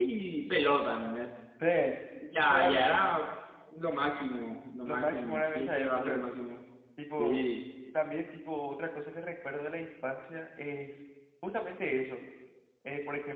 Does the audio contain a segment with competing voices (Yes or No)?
Yes